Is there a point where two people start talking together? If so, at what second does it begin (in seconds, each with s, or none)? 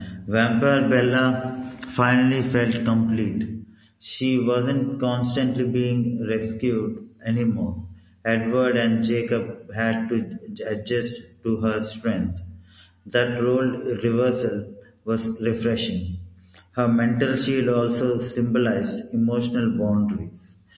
none